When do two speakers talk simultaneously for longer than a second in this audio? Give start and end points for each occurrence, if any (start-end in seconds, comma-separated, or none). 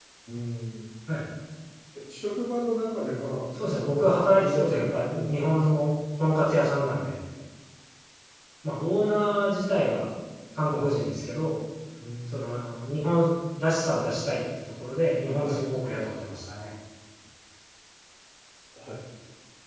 3.8-5.9